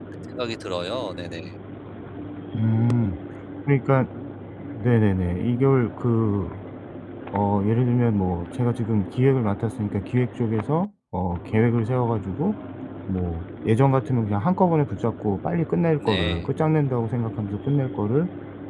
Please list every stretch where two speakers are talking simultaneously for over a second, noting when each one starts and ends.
none

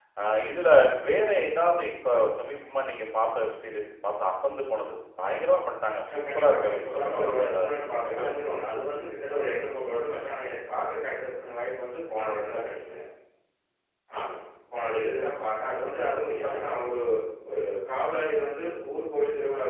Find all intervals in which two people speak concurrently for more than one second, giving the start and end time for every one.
6.1-8.2

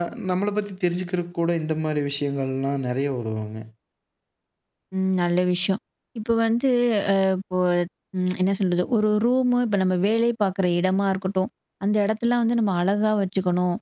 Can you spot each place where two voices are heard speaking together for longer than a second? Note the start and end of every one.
none

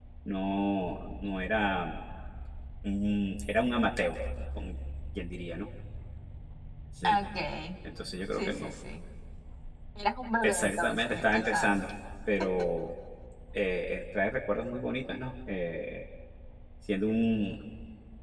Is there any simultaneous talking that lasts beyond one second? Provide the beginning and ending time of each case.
10.4-11.8

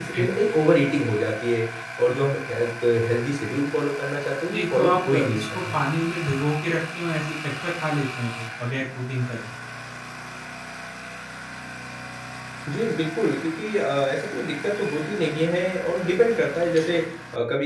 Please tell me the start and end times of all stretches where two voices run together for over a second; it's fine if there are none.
4.5-5.8

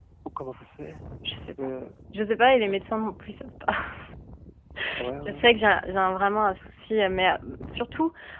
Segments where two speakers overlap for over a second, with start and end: none

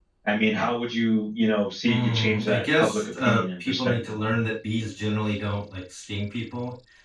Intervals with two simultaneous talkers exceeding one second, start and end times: 1.9-4.3

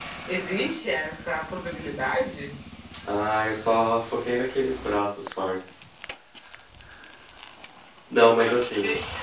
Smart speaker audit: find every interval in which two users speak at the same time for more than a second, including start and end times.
none

